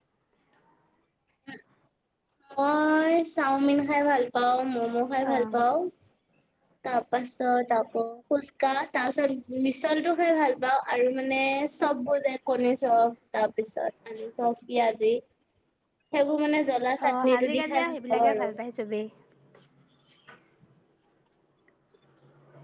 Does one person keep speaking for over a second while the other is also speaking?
Yes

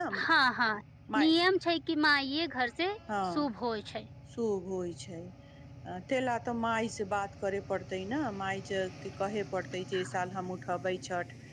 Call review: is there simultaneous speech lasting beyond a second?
No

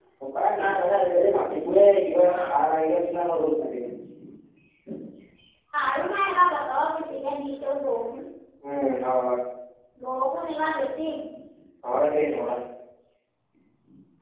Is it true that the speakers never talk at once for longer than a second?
Yes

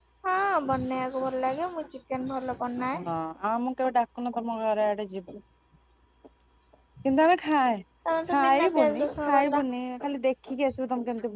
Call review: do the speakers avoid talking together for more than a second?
No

